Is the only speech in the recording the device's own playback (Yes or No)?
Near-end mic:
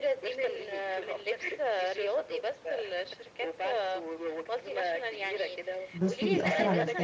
No